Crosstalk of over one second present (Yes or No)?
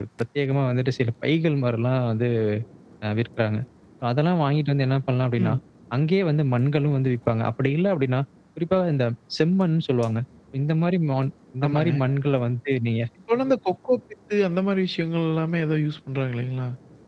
No